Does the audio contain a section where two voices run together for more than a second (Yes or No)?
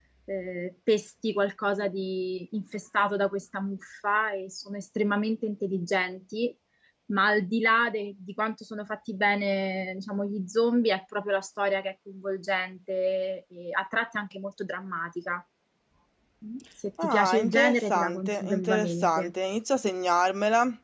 Yes